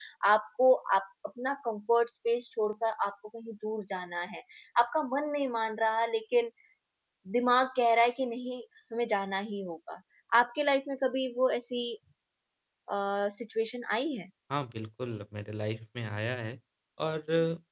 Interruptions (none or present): none